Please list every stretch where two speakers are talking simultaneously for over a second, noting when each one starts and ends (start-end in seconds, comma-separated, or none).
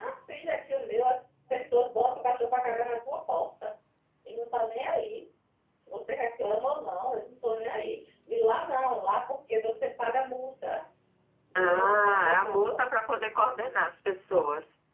11.6-12.8